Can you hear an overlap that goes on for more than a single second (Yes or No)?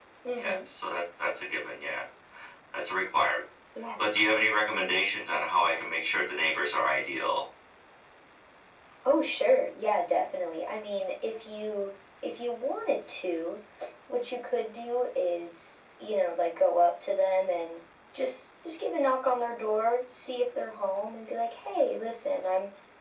No